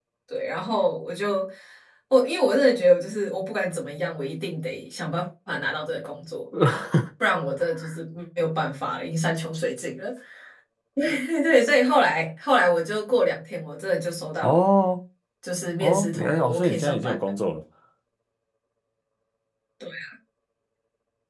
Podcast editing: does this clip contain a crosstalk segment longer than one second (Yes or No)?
Yes